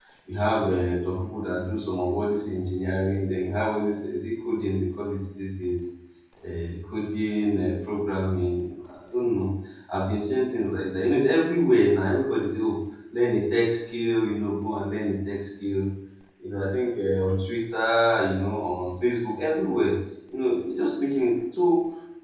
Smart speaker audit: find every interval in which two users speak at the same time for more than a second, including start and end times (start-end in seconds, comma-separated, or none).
none